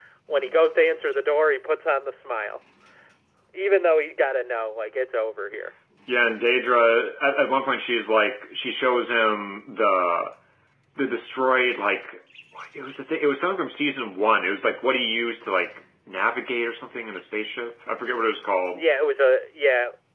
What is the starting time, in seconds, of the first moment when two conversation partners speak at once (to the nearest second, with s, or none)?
none